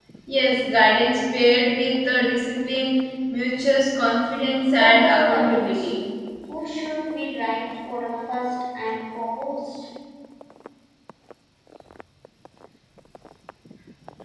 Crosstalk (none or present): present